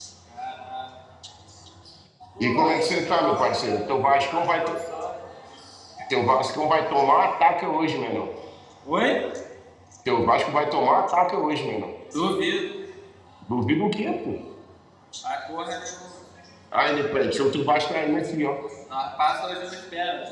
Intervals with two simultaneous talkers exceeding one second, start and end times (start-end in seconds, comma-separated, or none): 2.4-4.7